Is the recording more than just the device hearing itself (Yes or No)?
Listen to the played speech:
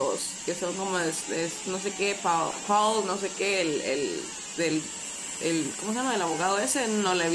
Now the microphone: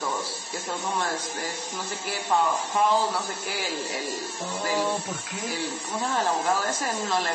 Yes